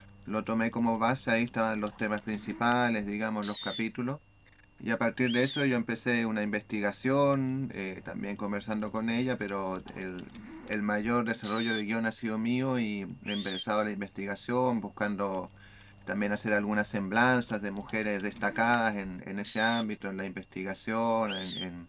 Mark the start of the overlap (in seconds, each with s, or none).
none